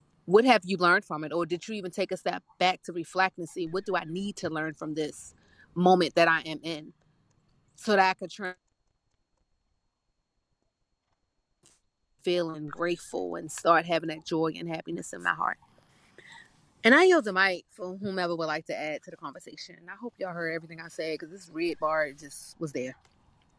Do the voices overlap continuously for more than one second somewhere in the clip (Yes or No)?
No